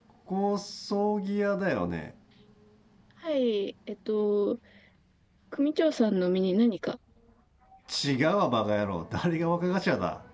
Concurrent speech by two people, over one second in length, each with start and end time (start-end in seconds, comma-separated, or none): none